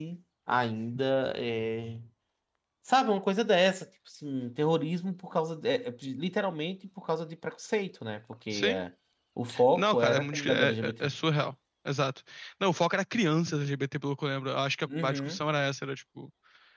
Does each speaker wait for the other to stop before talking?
No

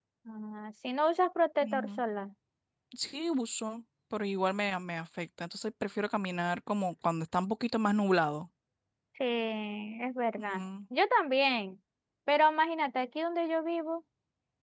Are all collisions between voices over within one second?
Yes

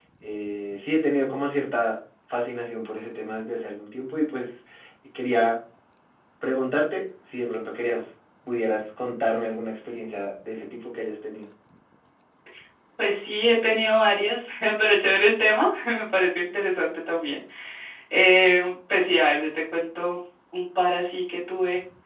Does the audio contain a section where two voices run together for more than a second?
No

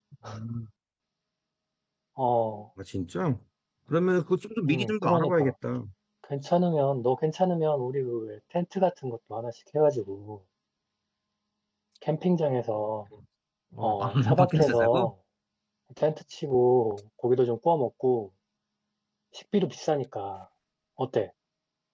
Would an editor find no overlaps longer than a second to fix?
No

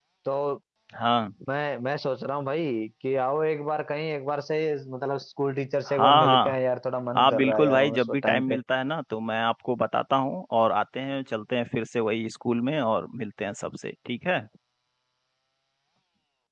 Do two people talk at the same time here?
Yes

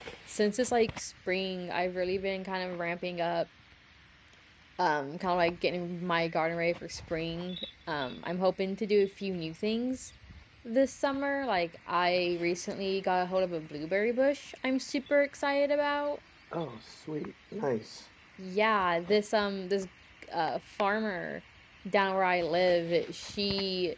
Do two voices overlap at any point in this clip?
No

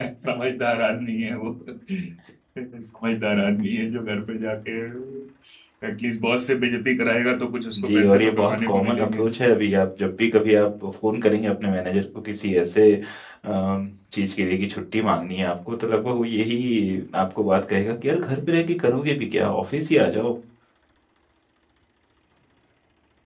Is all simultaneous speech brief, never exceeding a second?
No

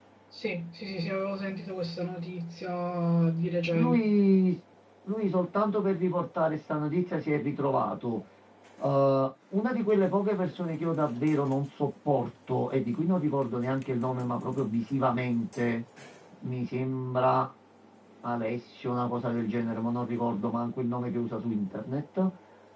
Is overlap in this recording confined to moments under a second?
Yes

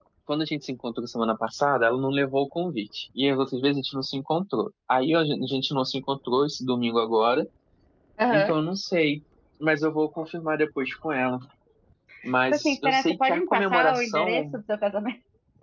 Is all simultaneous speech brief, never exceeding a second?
No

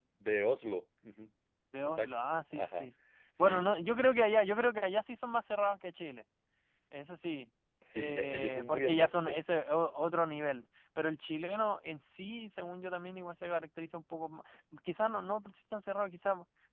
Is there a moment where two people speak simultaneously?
Yes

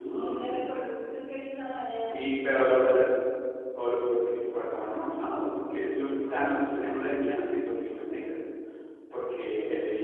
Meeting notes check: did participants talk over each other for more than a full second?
No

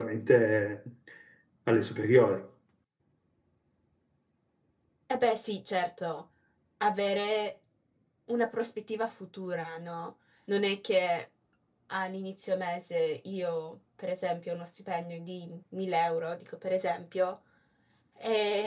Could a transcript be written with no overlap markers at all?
Yes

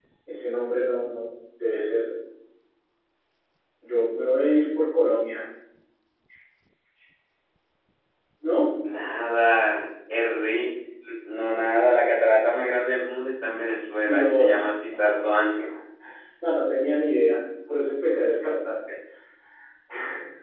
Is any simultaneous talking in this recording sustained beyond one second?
Yes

